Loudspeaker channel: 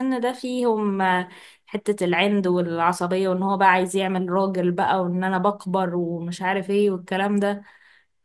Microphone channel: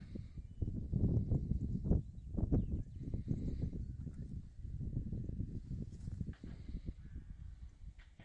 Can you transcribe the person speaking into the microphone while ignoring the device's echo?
none

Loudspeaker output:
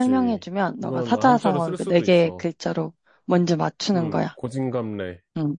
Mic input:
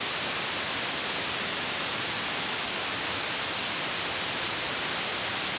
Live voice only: none

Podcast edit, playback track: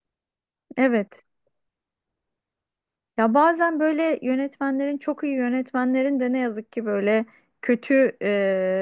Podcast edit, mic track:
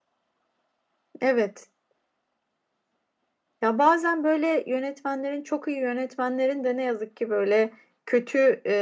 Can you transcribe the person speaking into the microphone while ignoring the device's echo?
none

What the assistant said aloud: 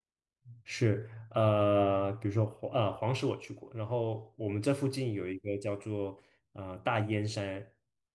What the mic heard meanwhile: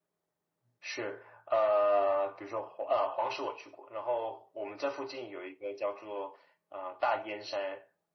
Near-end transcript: none

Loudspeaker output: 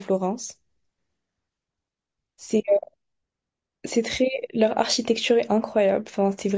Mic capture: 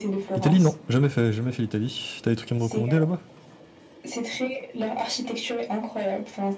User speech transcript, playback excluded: L'Italie, non, jamais fait, jamais fait l'Italie. T'as des trucs à me recommander là-bas?

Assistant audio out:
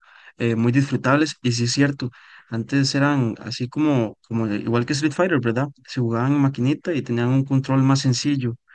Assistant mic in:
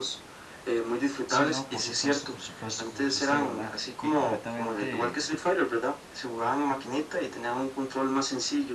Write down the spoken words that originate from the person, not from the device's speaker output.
Sí, no, por supuesto, por supuesto, como dice usted, ¿verdad? Y completamente

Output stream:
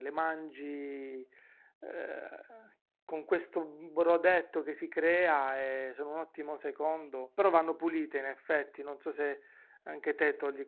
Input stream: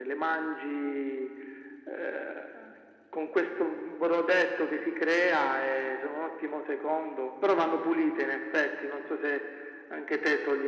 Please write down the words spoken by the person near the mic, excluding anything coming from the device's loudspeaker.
none

